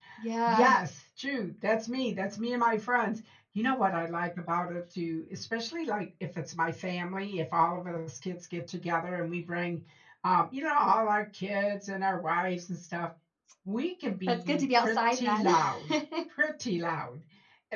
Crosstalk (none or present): present